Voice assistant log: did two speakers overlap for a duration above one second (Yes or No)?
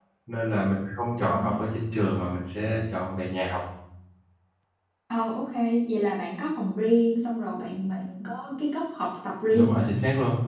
No